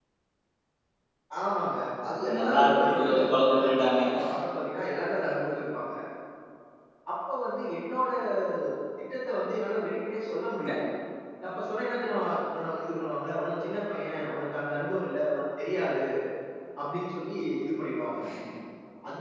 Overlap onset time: 2 s

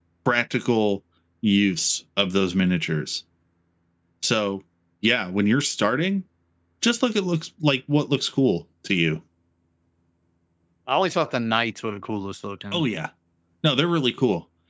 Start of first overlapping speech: none

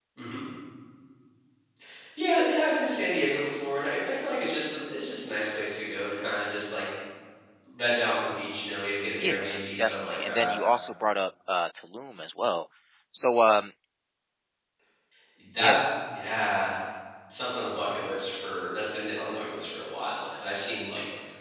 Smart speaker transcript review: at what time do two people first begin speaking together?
9 s

